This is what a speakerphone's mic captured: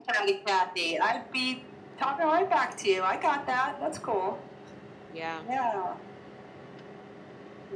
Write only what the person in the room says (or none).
Yeah.